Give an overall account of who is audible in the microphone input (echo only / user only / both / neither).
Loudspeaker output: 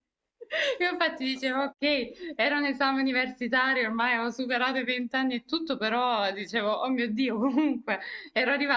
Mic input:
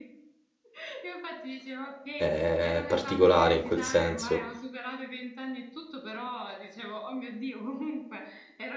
both